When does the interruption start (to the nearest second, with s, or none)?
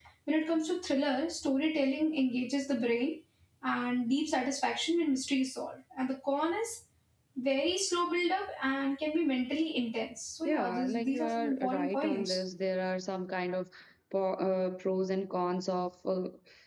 10 s